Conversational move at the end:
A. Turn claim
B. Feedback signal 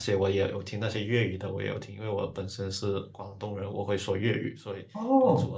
A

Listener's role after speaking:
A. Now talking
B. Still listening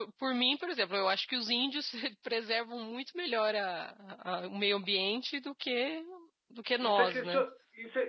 A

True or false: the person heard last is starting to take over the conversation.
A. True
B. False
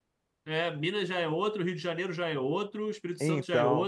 B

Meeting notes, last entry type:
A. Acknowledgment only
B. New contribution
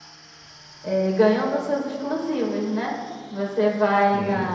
A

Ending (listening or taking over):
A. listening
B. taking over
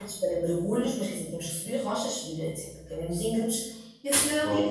A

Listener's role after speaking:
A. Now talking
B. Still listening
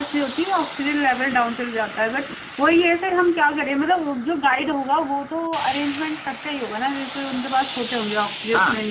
A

